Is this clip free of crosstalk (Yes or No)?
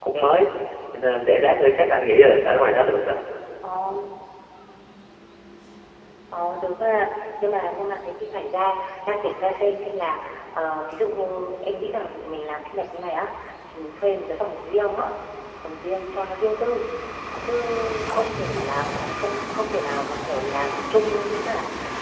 Yes